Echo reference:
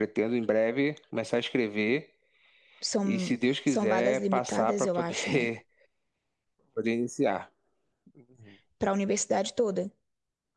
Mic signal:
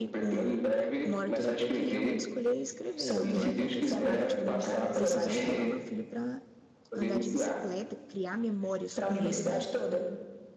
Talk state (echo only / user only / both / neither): both